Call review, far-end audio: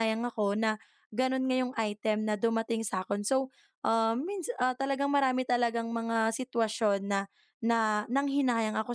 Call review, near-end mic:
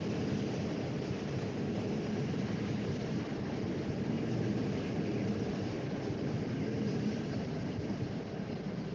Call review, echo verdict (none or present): none